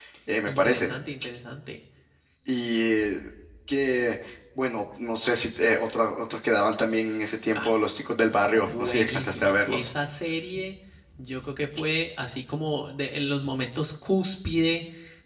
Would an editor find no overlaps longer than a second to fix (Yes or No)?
No